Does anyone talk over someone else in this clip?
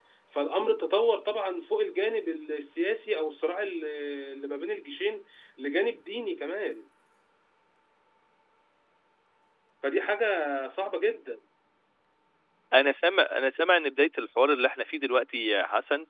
No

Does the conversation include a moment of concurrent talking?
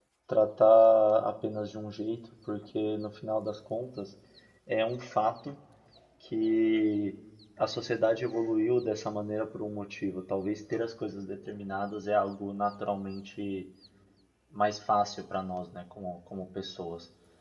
No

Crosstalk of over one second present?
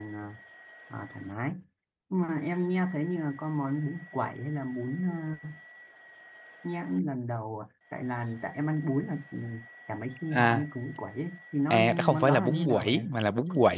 Yes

